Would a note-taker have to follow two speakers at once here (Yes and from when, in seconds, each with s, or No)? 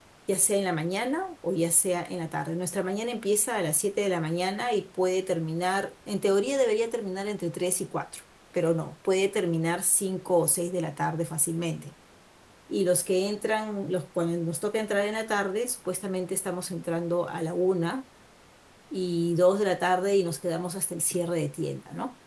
No